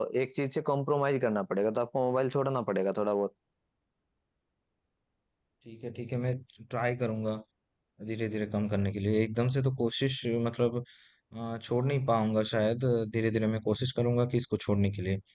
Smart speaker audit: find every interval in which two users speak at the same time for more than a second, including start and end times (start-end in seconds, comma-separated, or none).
none